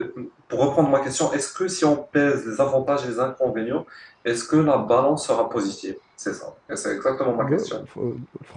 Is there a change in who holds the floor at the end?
Yes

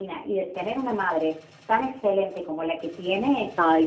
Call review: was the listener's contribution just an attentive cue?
Yes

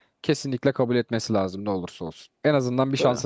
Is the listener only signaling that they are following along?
Yes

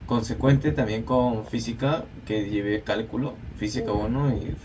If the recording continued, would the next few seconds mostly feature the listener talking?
No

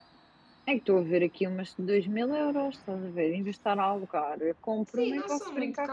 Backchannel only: No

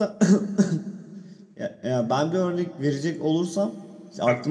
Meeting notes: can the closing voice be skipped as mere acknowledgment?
Yes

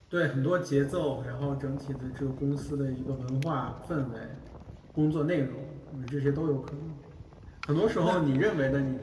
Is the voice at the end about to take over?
No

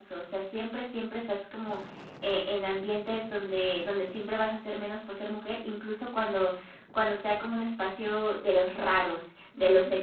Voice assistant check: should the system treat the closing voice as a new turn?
No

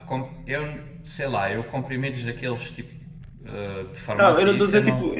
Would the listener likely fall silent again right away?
No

